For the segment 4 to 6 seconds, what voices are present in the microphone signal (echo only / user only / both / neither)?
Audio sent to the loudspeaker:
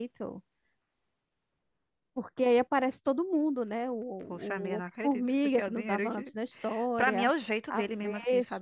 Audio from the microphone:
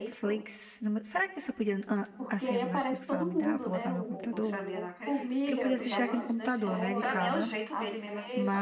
both